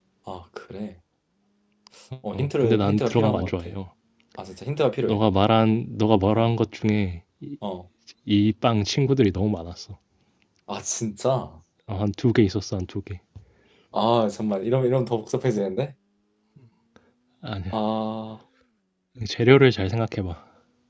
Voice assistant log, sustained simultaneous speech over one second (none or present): present